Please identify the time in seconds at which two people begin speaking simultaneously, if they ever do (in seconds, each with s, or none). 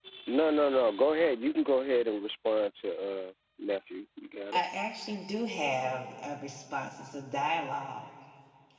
none